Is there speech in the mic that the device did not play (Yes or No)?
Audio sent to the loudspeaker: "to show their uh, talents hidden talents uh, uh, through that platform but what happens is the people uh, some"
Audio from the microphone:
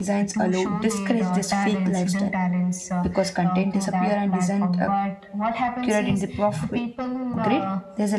Yes